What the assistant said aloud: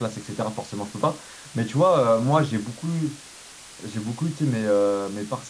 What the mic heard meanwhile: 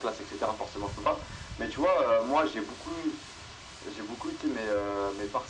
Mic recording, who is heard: echo only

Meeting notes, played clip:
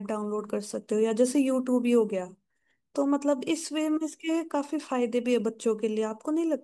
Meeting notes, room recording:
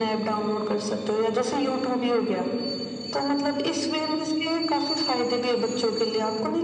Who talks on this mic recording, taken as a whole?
echo only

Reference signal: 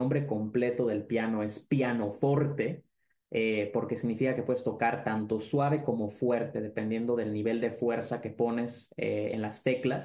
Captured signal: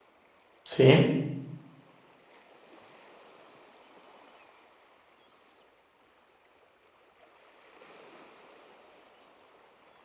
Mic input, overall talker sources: user only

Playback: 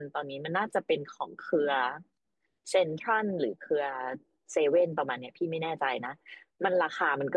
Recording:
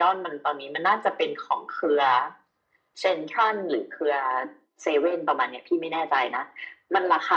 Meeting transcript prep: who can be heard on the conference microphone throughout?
echo only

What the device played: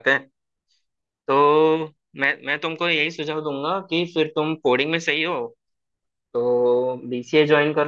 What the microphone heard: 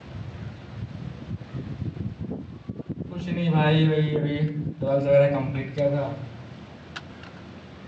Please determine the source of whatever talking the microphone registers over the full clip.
user only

